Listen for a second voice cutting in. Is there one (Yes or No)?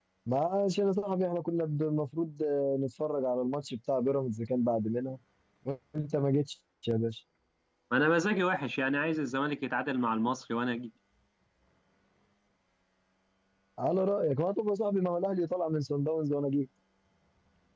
No